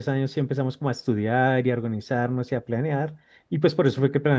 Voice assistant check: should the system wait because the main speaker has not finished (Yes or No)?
Yes